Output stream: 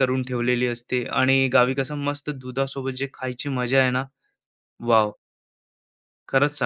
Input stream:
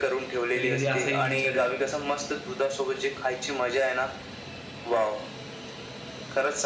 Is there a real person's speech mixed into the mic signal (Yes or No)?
Yes